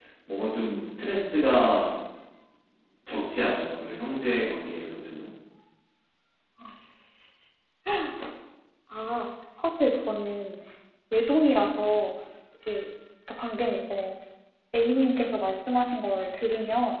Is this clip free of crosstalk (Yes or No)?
Yes